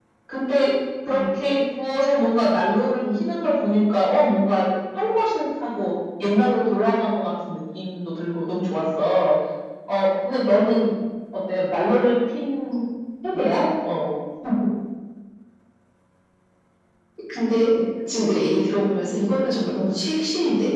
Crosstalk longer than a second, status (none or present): none